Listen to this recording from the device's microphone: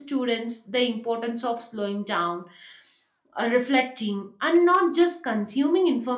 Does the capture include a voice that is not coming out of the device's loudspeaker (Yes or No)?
Yes